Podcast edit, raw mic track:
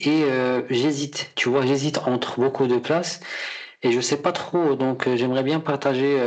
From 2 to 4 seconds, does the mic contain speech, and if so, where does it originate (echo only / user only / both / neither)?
echo only